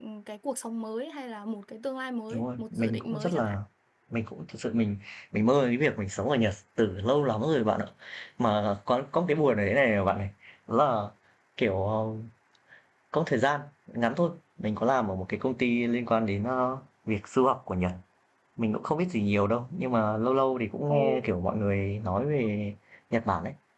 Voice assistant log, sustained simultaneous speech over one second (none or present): present